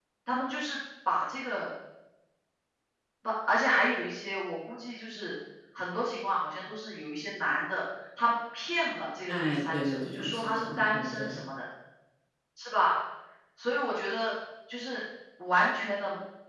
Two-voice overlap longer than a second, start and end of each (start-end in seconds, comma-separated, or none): 9.3-11.4